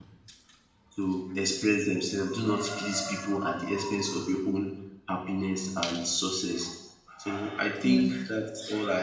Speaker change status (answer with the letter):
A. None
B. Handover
A